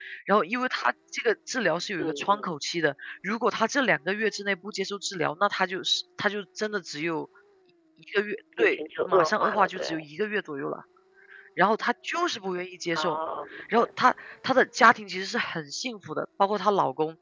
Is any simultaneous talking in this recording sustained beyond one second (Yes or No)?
Yes